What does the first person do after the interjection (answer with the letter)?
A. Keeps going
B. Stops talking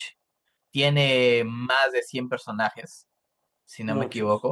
A